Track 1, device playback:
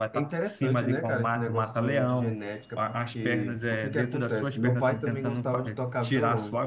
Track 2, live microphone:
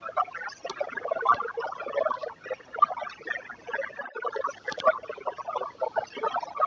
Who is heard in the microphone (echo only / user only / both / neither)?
echo only